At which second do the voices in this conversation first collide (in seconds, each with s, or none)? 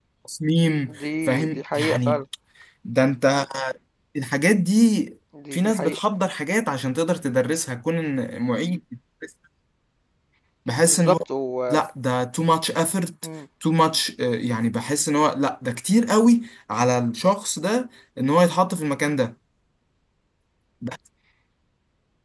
0.9 s